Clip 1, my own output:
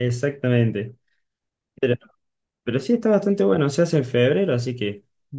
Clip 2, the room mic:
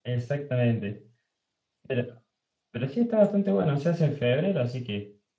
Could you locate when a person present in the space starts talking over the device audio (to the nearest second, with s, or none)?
none